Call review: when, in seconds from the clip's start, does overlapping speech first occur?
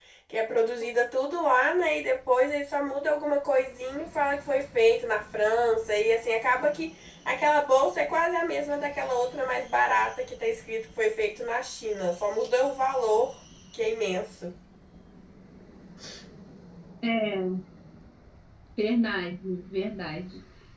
none

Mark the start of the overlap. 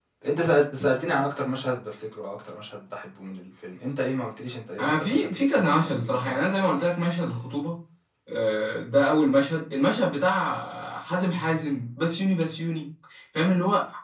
4.8 s

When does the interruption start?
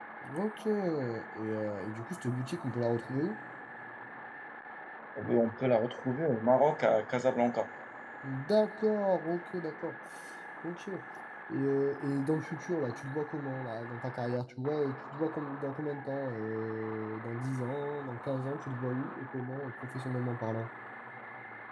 none

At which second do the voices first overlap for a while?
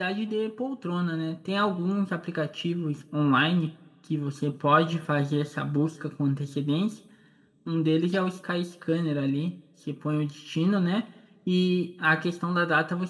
none

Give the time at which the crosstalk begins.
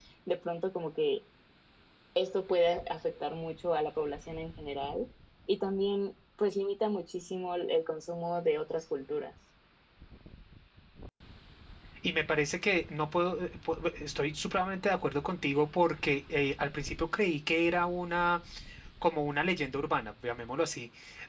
none

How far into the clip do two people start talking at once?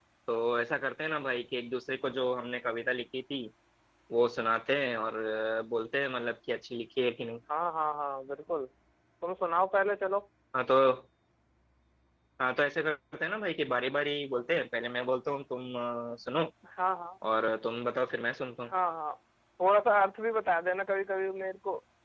none

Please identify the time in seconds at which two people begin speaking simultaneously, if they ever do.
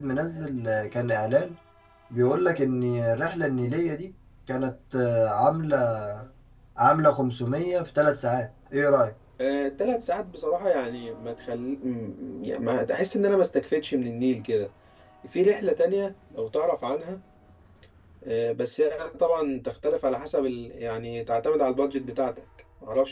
none

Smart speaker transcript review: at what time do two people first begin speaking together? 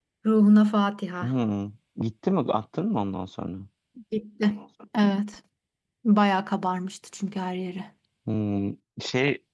none

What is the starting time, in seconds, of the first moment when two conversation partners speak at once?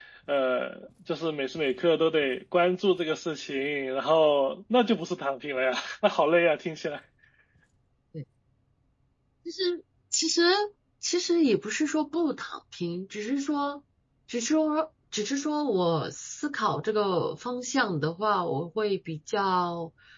none

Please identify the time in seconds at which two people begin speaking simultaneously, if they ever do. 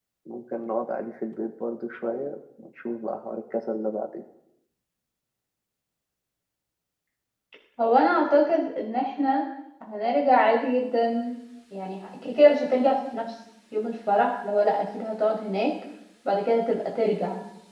none

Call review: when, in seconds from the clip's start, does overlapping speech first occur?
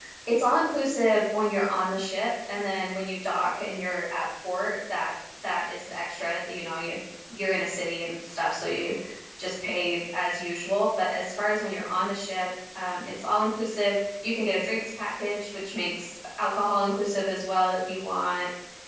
none

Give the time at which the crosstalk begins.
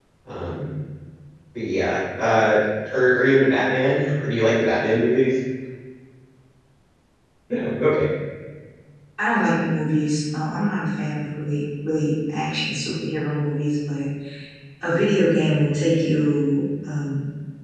none

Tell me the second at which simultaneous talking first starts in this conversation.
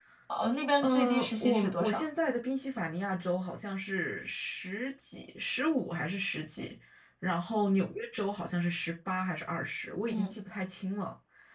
0.8 s

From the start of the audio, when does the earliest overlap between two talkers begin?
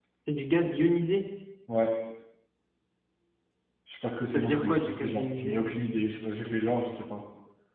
4.3 s

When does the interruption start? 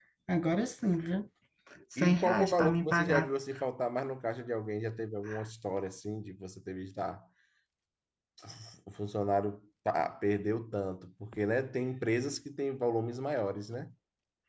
2.0 s

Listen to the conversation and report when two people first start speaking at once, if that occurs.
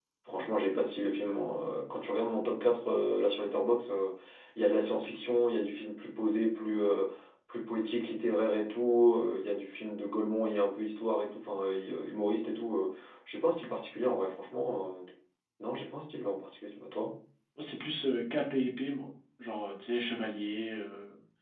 none

